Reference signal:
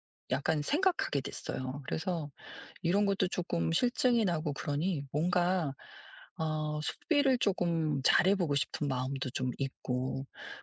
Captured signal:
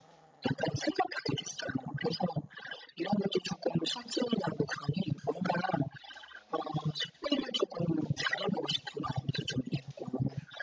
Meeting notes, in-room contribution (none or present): none